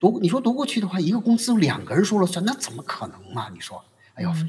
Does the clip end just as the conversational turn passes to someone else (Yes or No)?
Yes